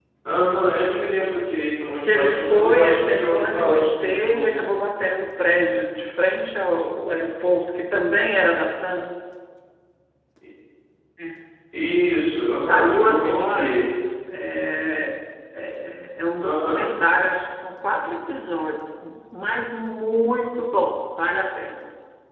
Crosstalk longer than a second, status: present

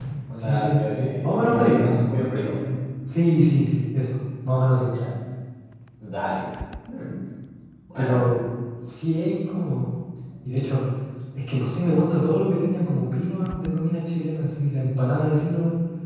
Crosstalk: present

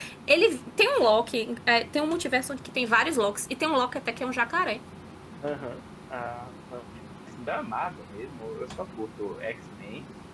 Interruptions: none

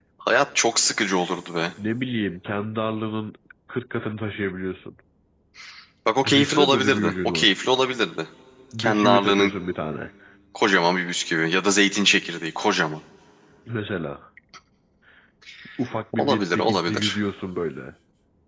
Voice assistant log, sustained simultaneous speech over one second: present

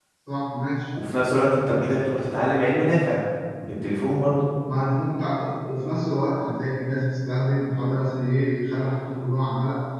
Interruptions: none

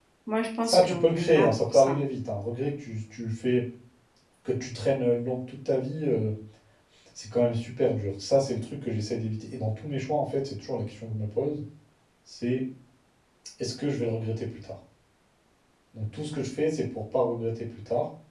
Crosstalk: present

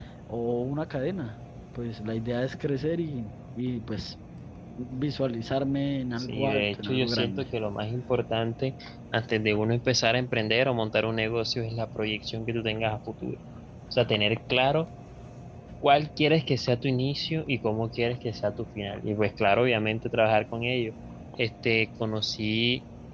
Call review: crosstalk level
present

